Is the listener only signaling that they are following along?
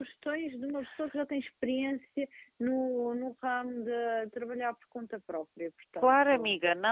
No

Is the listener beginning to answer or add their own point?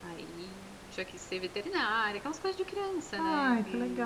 Yes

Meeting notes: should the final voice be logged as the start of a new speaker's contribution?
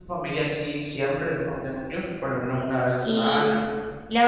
Yes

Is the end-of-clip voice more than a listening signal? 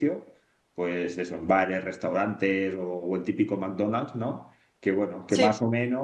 No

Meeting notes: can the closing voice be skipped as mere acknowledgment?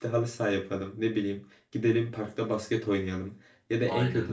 Yes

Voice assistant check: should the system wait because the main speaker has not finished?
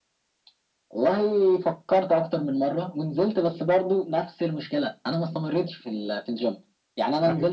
Yes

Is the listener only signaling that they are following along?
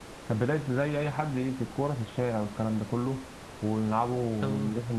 Yes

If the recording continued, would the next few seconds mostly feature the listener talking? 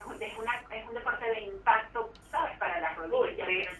No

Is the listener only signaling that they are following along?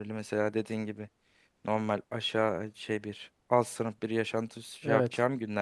Yes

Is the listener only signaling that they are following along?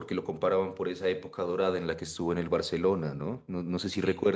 Yes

